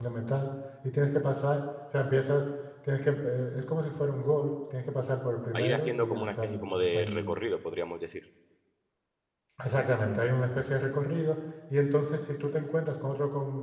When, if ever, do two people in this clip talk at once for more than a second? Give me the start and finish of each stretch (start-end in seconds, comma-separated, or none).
5.5-7.3